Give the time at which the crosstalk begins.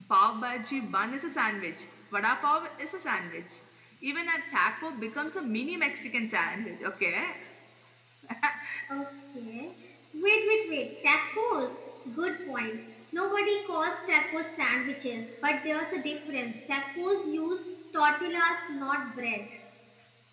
none

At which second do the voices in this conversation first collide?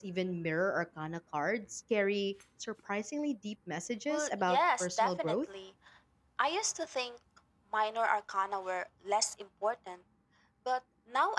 4.1 s

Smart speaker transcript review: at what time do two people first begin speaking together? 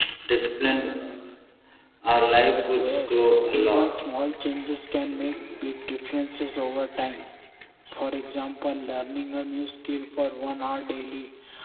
2.7 s

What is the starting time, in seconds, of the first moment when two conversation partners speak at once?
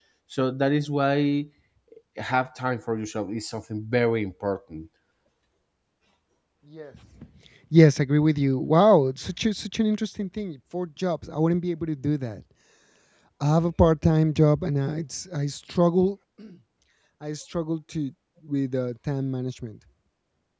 none

